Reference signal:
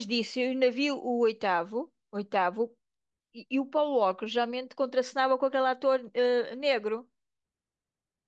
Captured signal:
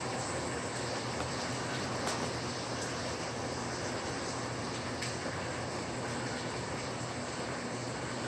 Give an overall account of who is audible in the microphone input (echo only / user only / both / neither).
neither